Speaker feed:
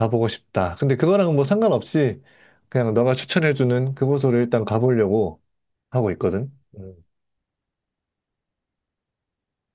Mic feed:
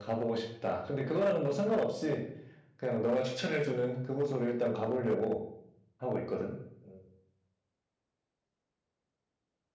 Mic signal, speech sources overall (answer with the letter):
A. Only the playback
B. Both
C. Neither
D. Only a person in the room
A